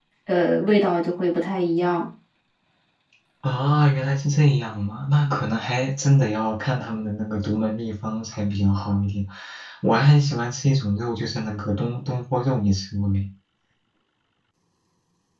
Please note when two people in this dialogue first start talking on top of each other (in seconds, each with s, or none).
none